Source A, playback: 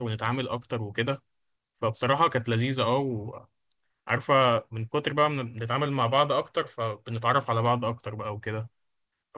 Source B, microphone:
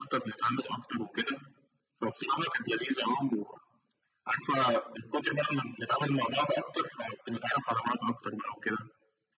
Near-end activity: none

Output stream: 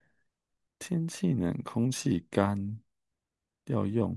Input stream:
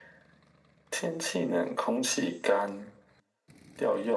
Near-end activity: none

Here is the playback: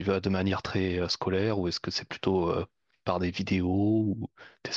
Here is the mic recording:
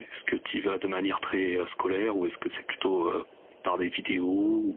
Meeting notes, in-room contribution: none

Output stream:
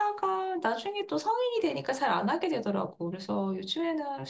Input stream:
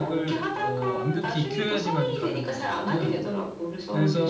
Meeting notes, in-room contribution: present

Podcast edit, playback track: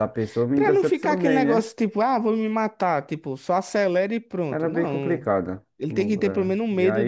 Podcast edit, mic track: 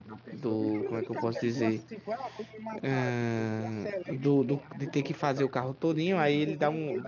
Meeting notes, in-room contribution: present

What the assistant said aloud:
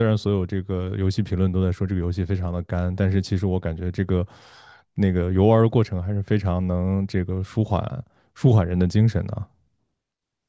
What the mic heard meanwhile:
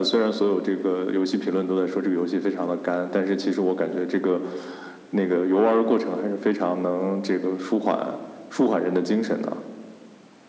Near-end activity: none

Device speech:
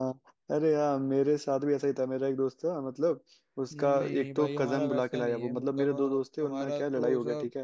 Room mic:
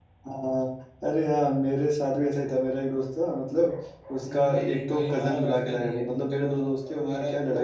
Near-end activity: none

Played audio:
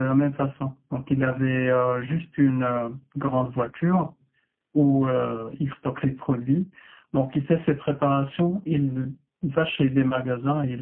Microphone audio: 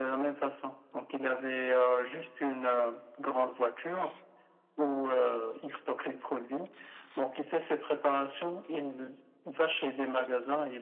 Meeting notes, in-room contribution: none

